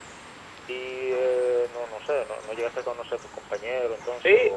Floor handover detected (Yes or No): Yes